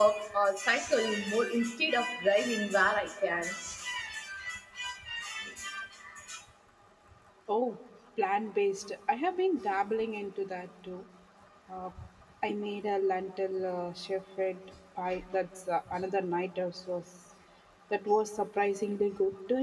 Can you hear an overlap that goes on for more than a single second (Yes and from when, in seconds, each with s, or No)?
No